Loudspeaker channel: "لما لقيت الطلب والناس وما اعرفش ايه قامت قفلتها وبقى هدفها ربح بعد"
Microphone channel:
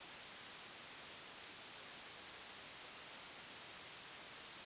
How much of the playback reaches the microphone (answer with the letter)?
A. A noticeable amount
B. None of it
B